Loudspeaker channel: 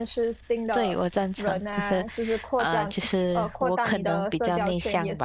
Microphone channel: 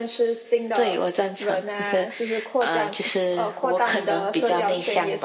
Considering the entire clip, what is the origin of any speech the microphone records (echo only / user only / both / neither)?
both